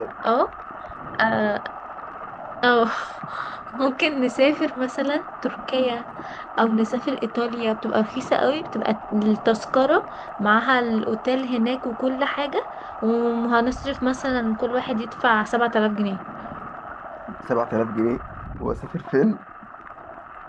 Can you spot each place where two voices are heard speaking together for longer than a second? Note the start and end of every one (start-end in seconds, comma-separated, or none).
none